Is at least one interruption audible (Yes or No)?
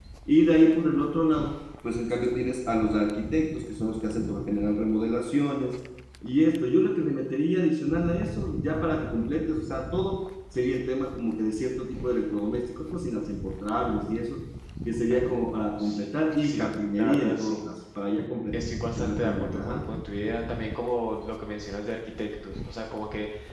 Yes